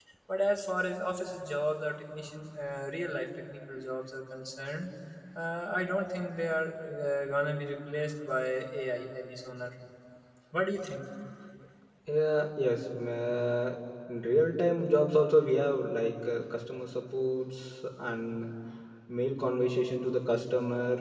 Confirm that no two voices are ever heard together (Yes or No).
Yes